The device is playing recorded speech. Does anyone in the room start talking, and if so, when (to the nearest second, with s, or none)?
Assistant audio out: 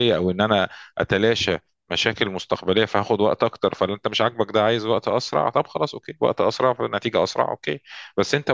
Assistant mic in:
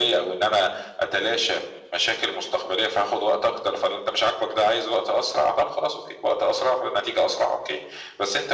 none